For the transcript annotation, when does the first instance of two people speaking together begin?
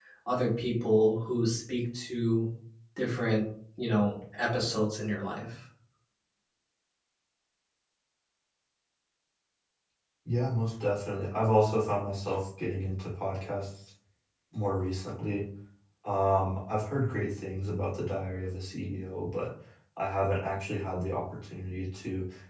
none

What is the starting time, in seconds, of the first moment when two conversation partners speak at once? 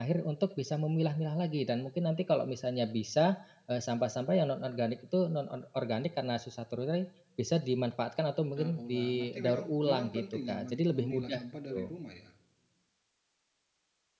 8.6 s

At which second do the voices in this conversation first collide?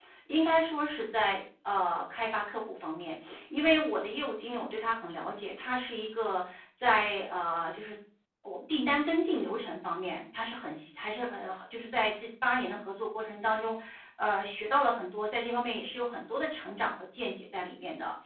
none

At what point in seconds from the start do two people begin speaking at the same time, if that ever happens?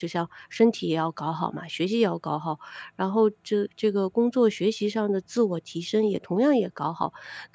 none

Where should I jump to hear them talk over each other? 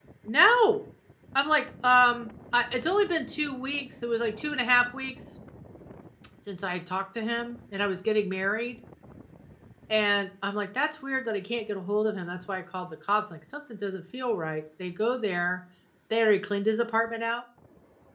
none

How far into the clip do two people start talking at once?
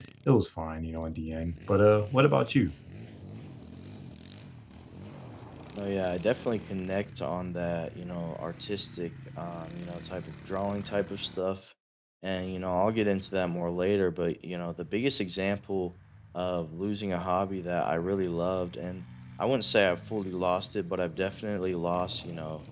none

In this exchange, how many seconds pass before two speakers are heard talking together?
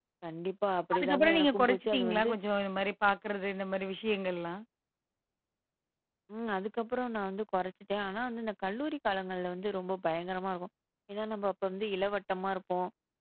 0.9 s

